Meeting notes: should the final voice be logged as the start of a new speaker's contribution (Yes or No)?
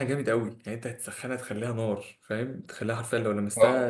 No